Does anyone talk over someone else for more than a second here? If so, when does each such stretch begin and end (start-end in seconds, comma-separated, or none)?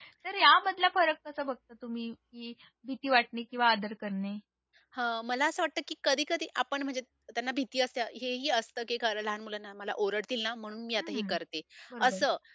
none